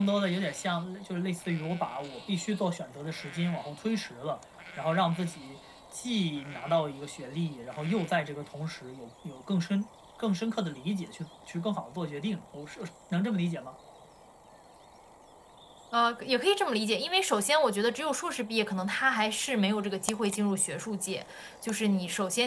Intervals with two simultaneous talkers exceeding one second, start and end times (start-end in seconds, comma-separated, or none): none